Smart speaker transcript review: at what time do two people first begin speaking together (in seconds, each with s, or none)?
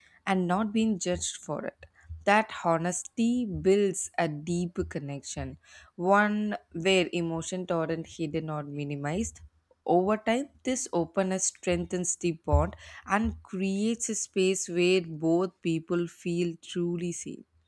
none